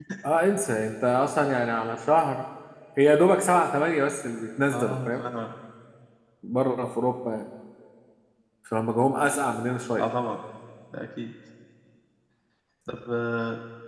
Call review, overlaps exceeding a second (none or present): none